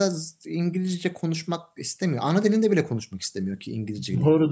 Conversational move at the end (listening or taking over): taking over